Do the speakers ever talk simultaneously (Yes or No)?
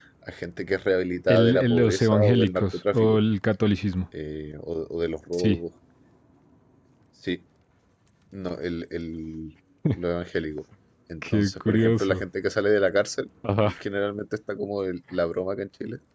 Yes